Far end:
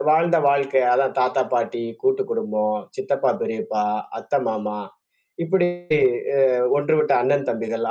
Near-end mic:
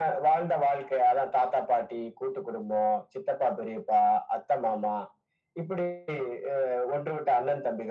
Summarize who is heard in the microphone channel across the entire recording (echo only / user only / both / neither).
echo only